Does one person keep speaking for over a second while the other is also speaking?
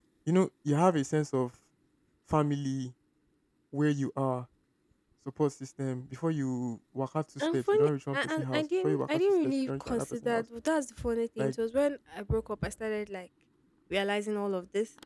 Yes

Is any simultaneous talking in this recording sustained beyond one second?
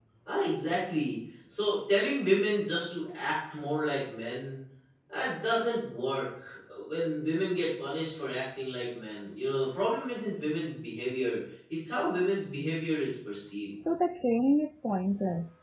No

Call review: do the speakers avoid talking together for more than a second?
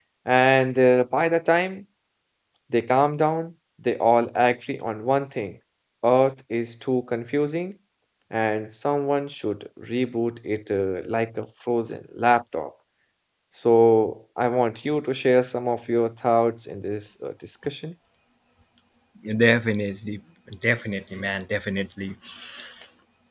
Yes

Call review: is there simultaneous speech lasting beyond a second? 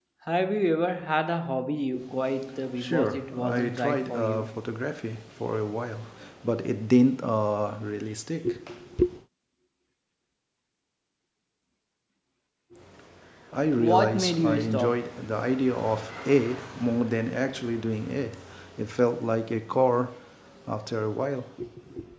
Yes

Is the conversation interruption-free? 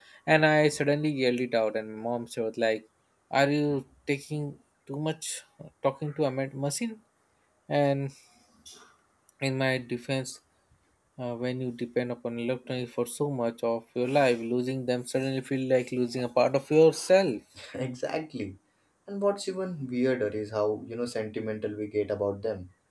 Yes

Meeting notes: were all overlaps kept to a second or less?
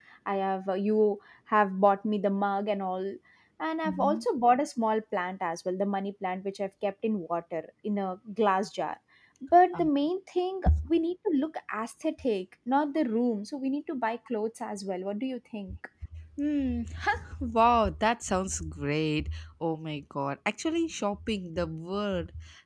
Yes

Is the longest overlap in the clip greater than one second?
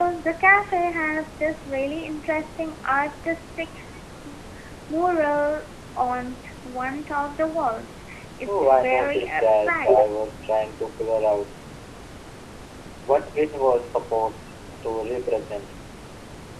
Yes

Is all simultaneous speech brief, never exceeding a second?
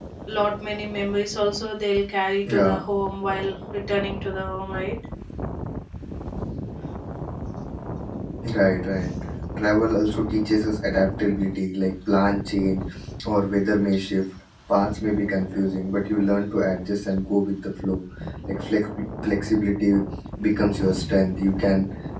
Yes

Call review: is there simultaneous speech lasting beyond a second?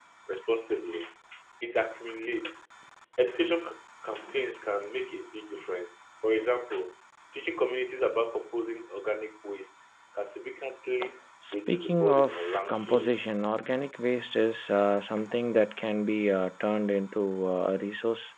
Yes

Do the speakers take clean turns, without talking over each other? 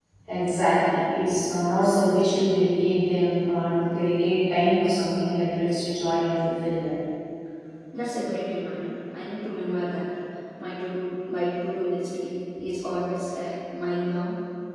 Yes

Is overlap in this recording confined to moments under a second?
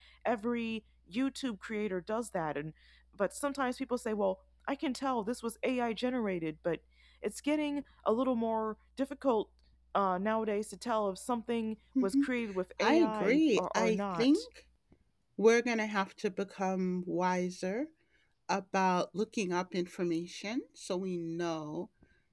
No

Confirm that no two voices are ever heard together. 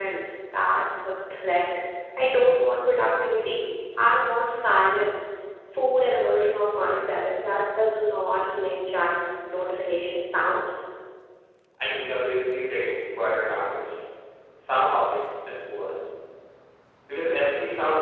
Yes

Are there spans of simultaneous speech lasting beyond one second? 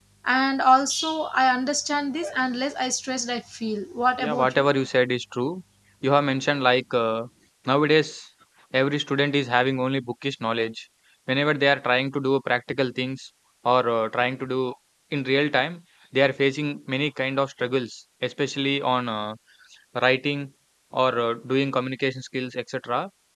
No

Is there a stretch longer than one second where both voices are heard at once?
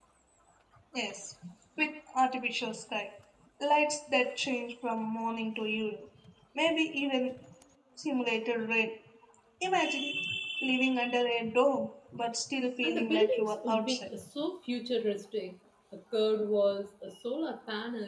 Yes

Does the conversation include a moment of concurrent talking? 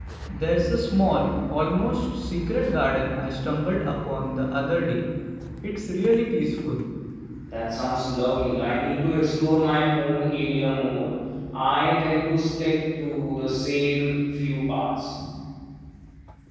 No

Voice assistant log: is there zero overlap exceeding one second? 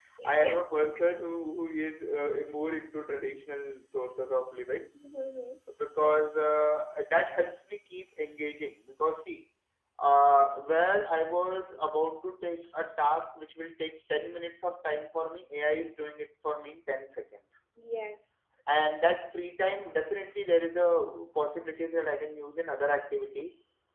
Yes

